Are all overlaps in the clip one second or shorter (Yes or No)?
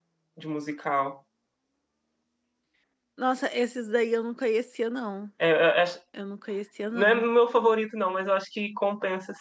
Yes